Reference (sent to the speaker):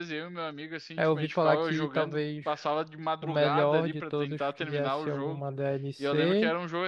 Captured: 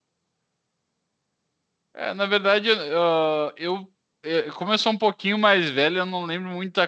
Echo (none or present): none